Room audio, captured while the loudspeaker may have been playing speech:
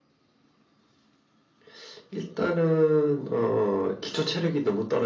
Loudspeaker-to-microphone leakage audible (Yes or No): Yes